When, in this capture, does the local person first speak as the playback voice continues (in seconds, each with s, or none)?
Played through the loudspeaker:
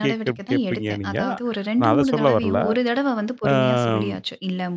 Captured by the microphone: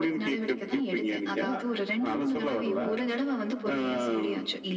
none